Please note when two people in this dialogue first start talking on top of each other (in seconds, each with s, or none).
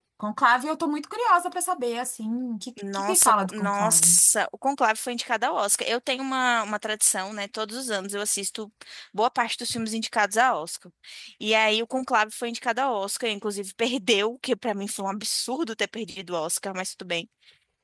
2.8 s